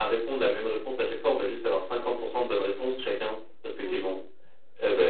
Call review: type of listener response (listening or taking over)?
listening